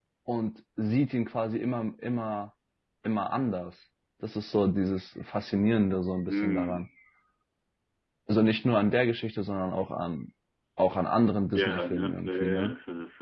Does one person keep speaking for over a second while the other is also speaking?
Yes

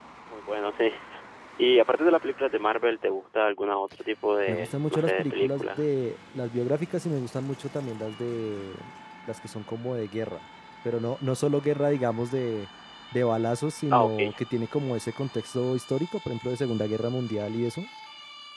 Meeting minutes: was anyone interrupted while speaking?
Yes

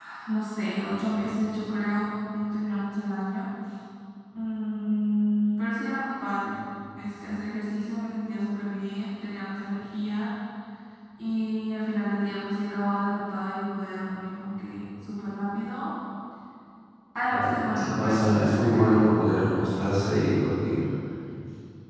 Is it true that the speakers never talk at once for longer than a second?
No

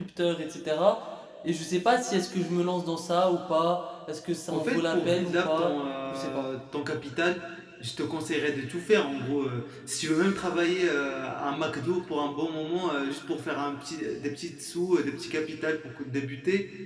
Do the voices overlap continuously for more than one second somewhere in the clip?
Yes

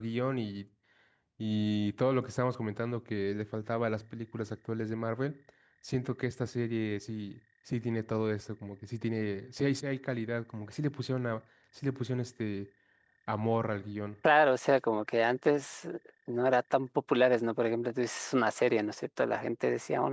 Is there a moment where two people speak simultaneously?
No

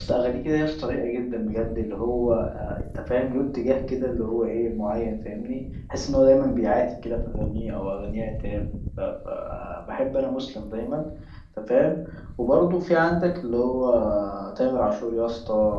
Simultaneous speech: No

